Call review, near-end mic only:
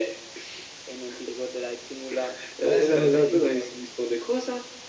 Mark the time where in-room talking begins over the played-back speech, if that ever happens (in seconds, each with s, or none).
2.6 s